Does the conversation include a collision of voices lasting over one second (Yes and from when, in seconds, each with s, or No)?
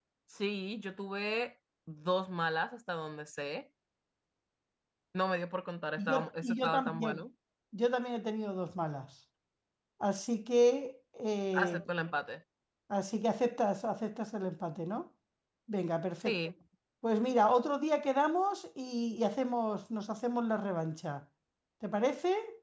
Yes, from 6.0 s